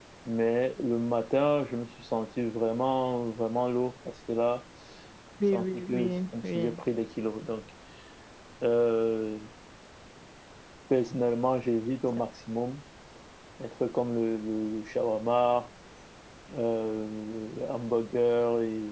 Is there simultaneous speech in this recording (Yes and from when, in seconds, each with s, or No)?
Yes, from 5.5 s